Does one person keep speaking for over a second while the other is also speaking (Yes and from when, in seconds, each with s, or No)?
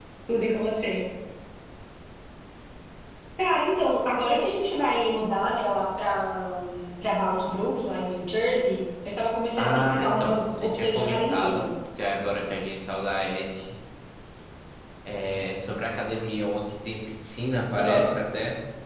Yes, from 9.6 s